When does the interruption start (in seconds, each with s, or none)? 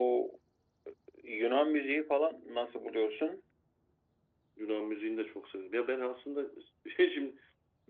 none